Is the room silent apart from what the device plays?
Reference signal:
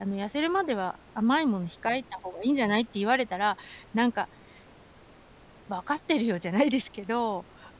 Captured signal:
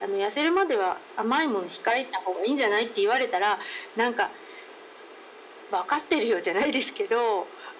Yes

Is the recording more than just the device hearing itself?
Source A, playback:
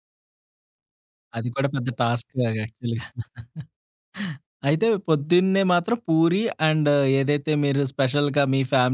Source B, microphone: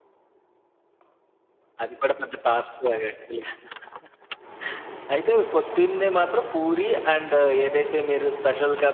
No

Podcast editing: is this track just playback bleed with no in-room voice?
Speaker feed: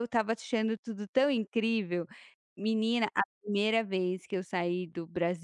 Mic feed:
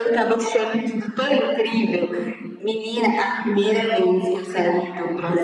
Yes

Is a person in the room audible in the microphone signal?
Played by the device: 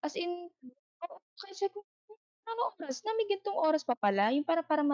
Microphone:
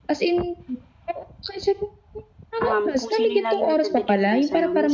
Yes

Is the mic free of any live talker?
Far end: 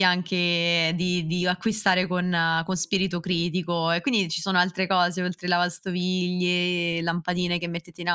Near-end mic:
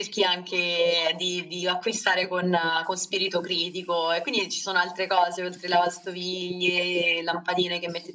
Yes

